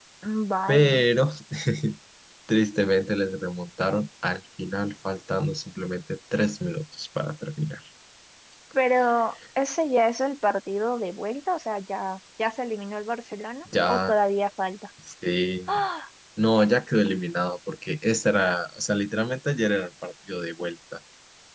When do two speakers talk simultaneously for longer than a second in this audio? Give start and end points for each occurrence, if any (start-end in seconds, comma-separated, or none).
none